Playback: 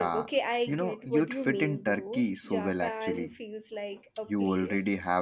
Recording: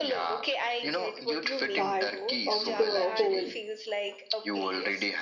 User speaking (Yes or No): Yes